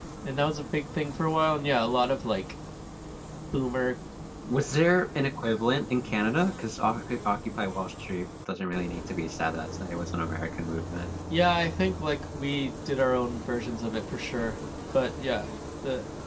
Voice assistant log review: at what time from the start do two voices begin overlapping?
none

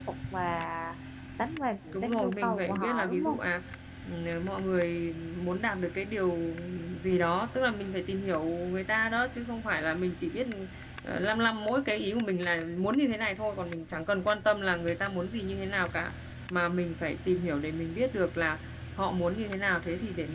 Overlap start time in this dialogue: 1.9 s

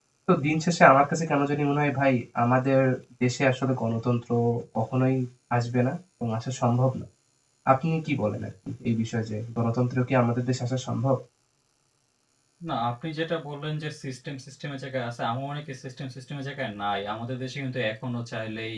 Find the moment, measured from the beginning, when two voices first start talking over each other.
none

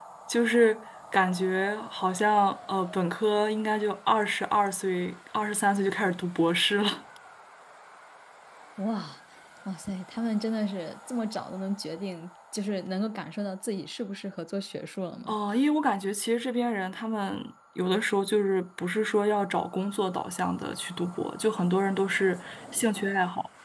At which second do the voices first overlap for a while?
none

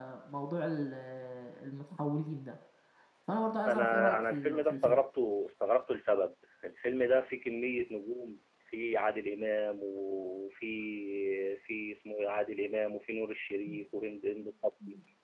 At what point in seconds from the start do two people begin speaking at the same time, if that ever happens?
3.7 s

